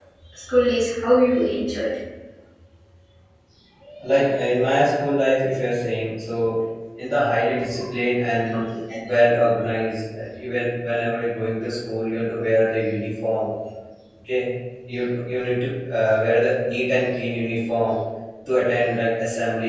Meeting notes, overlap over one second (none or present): none